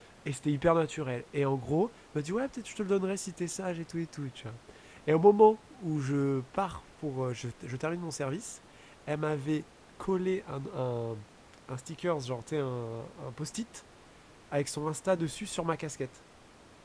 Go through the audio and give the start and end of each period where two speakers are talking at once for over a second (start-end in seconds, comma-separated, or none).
none